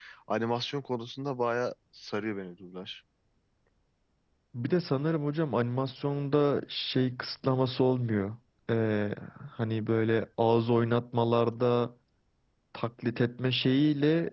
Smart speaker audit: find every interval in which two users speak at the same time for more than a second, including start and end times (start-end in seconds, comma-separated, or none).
none